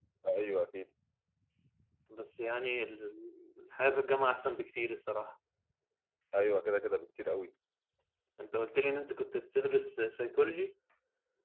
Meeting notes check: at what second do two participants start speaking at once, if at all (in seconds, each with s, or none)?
none